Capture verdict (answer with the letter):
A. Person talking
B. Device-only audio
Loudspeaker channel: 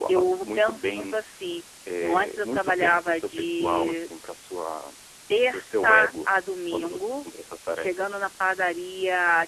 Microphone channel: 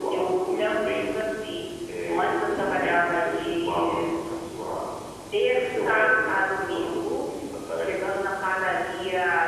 B